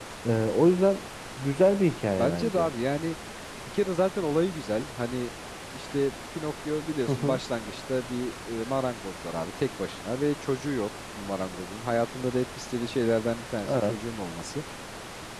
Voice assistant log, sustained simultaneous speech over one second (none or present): none